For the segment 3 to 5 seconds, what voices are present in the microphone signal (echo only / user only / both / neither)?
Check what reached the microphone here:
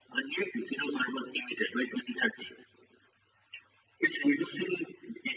echo only